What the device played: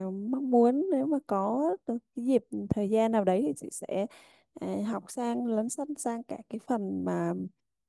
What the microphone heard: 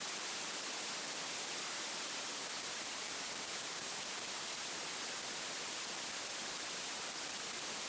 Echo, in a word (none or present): none